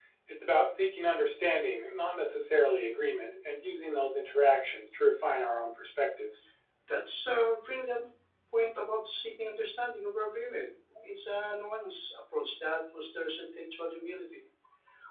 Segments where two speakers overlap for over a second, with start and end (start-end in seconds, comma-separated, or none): none